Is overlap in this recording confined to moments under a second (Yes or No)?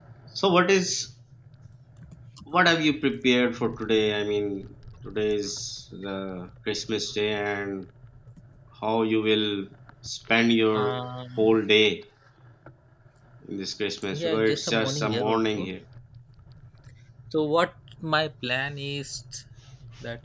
No